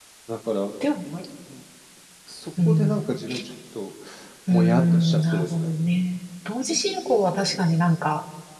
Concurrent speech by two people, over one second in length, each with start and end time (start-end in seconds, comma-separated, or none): 4.5-5.7